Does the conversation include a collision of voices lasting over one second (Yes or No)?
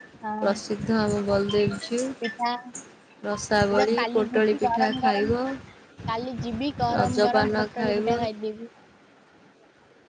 Yes